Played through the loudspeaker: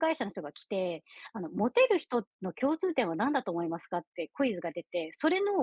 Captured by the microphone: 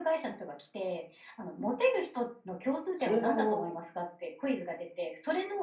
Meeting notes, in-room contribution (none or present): present